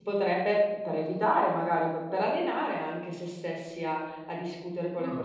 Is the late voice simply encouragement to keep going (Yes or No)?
No